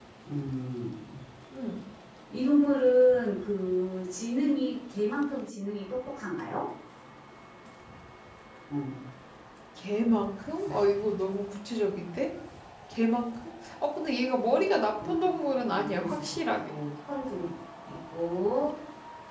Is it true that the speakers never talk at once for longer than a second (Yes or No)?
No